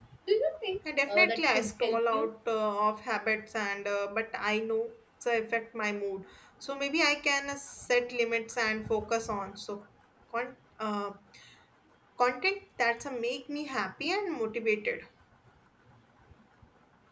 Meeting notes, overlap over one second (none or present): present